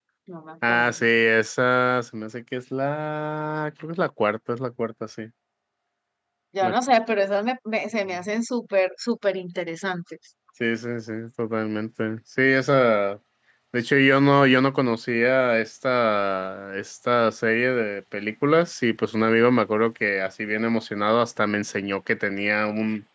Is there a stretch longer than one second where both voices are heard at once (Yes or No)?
No